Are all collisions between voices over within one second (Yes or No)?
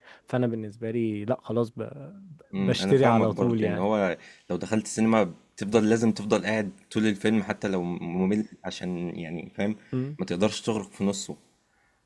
No